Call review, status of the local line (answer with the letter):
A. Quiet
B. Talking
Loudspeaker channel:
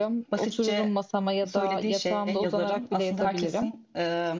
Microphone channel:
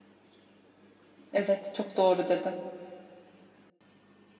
B